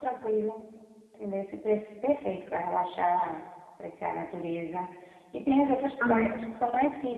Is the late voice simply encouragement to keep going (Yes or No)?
Yes